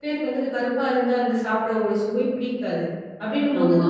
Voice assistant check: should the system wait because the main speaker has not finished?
Yes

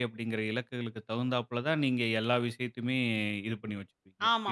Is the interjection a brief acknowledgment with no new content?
No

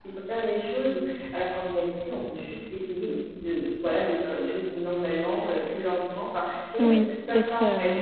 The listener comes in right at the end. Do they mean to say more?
Yes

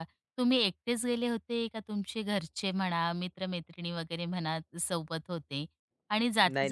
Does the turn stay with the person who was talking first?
Yes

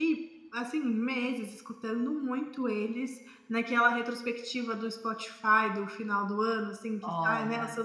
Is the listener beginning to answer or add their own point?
No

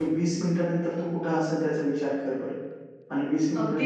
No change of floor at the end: No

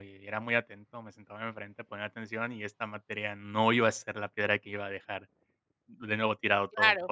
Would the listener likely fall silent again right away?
No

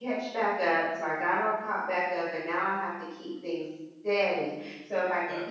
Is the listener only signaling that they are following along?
Yes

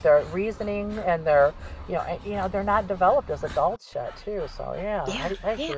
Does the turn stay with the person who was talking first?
No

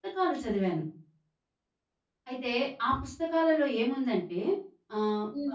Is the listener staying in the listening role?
No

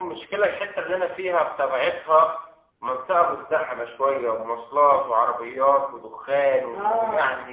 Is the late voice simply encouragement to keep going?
No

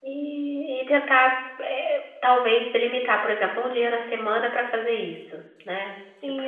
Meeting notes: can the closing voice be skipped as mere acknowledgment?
No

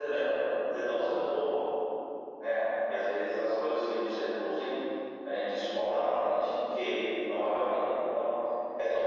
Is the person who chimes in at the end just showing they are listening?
Yes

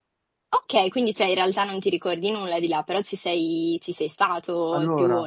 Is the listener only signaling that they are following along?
No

